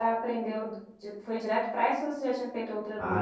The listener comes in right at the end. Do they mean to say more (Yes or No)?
Yes